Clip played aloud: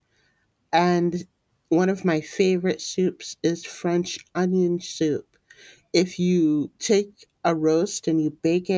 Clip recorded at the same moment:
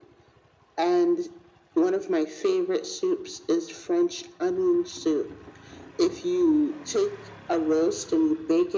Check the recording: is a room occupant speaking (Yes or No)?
No